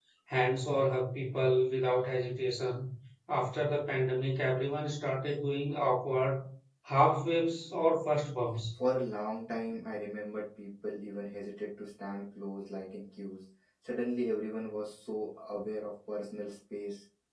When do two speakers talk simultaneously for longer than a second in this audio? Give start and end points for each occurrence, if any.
none

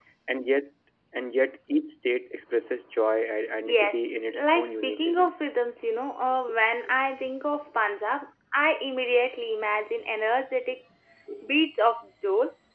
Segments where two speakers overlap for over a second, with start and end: 3.6-5.3

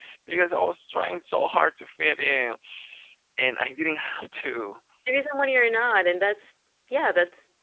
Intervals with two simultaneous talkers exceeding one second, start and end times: none

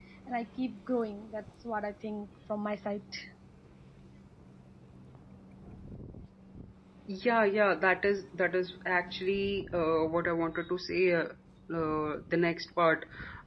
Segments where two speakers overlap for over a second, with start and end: none

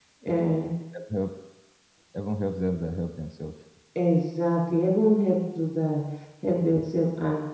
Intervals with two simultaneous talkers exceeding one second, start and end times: none

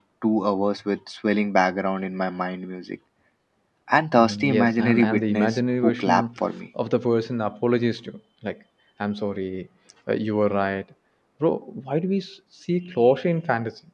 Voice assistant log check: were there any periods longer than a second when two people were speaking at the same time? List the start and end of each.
4.2-6.2

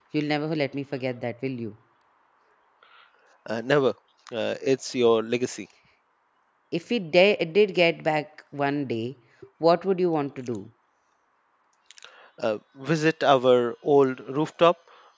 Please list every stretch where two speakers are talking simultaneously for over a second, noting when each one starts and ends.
none

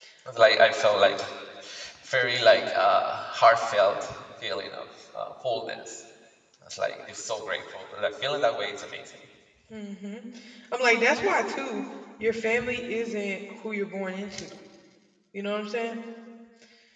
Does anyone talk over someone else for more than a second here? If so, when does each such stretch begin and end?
none

